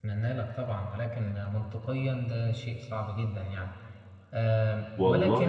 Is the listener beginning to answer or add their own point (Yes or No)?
Yes